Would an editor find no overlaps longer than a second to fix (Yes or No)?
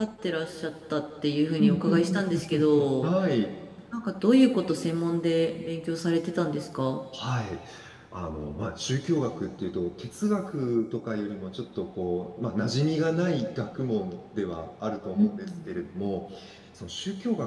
No